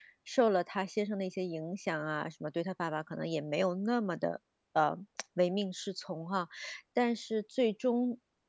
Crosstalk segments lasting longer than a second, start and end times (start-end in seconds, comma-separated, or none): none